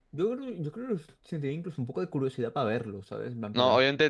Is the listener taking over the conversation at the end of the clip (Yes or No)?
Yes